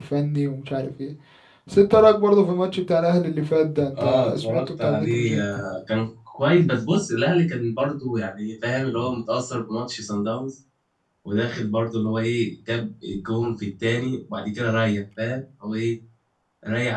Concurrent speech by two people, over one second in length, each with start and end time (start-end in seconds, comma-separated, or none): 4.0-5.4